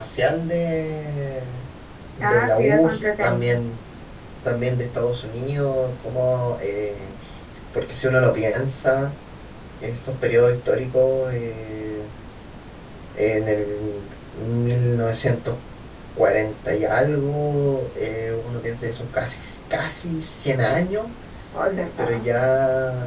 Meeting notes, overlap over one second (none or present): present